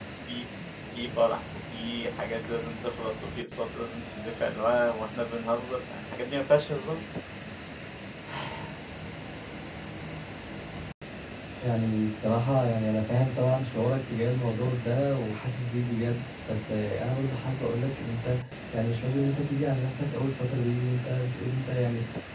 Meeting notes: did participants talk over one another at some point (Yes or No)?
No